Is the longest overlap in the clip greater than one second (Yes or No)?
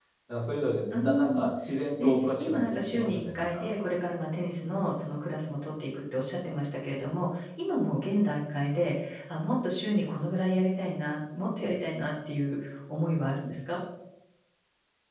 Yes